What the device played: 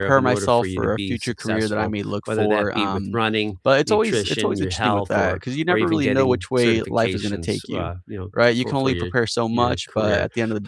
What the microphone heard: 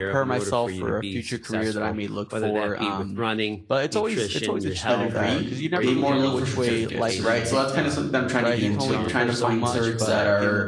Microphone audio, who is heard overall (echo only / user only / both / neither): both